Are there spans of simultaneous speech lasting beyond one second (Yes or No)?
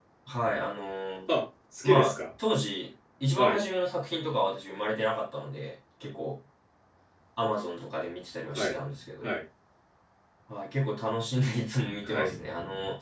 No